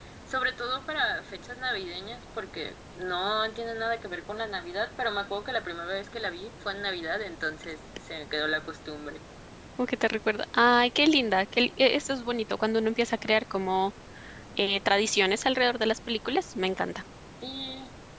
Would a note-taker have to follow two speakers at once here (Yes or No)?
No